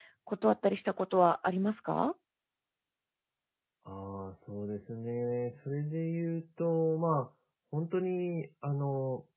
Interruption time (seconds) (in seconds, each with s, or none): none